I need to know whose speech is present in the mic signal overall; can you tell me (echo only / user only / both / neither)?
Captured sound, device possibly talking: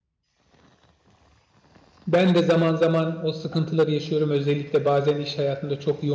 user only